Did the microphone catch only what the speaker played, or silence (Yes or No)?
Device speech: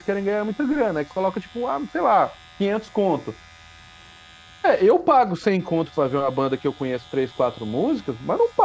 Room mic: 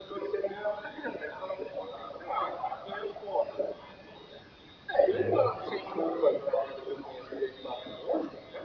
No